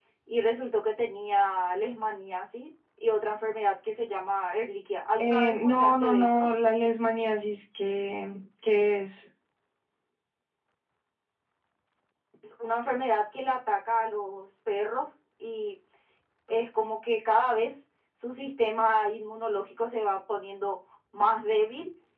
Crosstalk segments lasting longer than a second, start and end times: 5.2-6.5

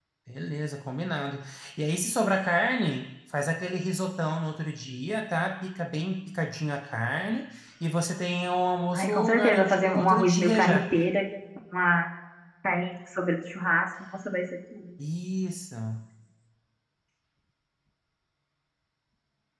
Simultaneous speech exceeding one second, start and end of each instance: 8.9-10.8

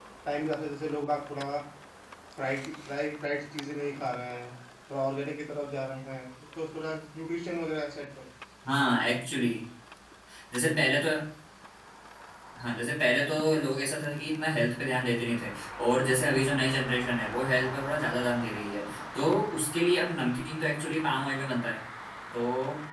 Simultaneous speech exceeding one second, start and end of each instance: none

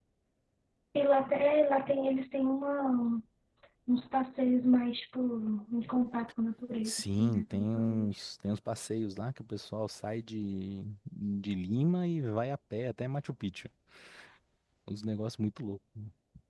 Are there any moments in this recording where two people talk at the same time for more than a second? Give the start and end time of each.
6.8-8.1

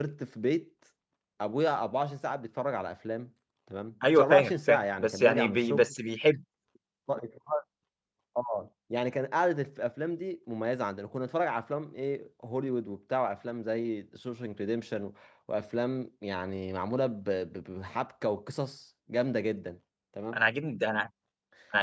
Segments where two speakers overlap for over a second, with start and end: 4.2-5.9

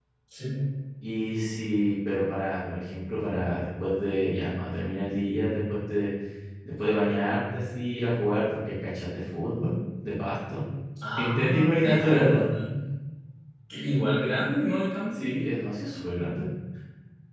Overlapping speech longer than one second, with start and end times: 11.2-12.4

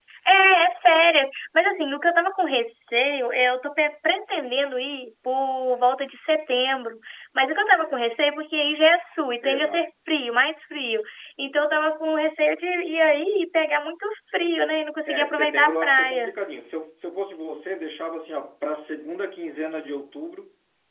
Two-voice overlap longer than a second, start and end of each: 15.1-16.3

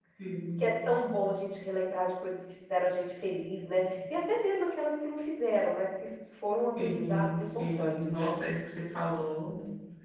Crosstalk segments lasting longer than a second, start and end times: 6.8-8.4

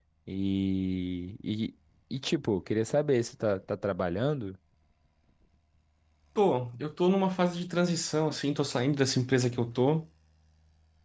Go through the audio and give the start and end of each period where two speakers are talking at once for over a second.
none

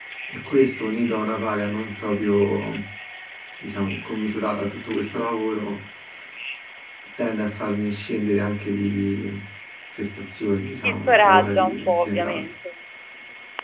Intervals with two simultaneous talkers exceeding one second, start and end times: 10.8-12.5

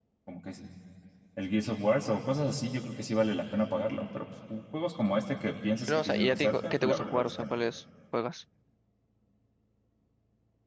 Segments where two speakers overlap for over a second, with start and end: 5.9-7.5

